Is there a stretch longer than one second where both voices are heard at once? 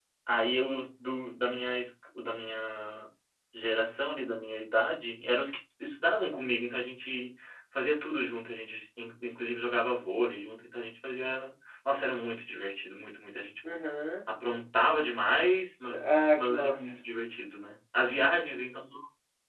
No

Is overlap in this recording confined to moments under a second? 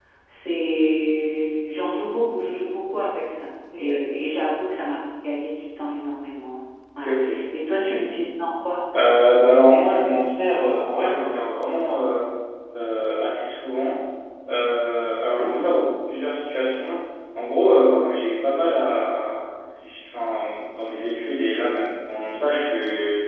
Yes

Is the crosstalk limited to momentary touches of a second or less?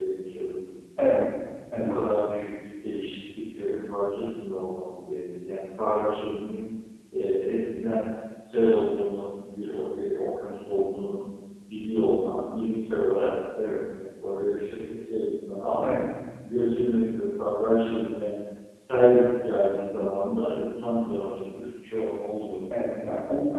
Yes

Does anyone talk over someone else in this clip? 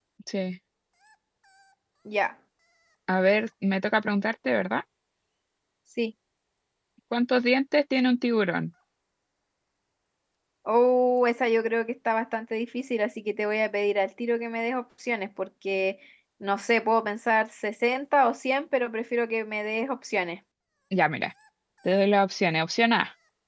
No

